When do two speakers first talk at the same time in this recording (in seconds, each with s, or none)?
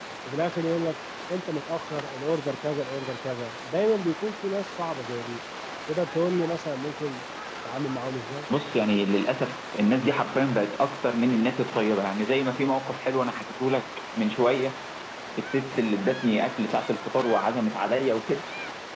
none